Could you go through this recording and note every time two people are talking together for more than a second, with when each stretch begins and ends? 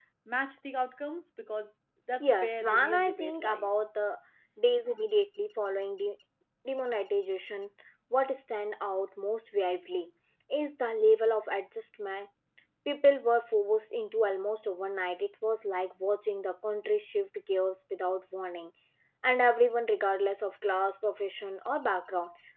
2.2-3.7

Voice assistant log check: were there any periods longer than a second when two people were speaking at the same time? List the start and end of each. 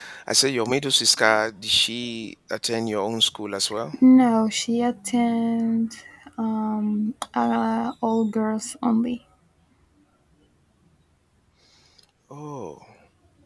none

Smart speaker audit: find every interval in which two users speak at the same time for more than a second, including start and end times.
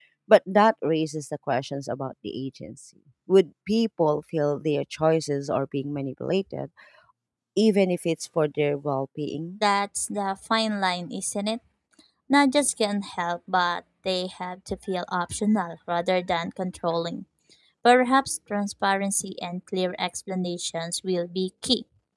none

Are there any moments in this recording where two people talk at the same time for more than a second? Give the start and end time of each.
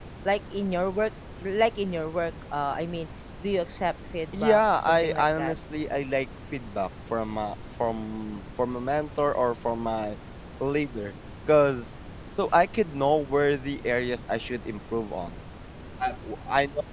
4.3-5.6

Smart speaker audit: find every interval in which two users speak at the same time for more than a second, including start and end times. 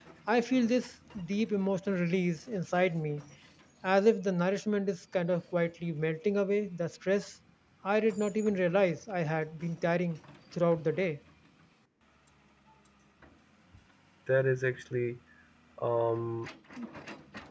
none

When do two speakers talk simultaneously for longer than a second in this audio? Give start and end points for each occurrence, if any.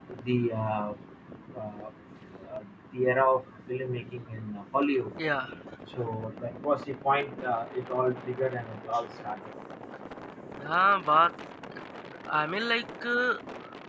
none

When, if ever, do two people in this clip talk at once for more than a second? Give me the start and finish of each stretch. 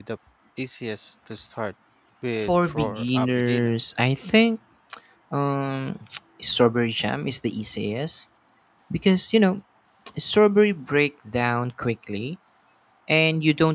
2.4-3.7

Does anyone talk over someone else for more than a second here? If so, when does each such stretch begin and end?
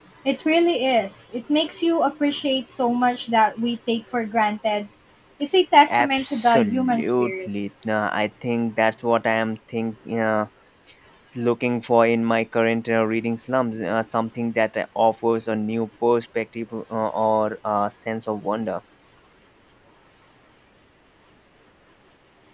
5.9-7.5

